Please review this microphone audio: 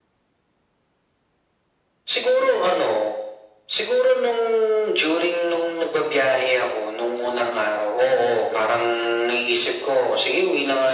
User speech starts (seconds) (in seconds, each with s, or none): none